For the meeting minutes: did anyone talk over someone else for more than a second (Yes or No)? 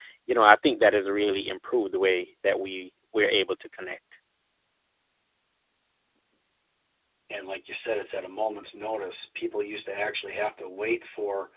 No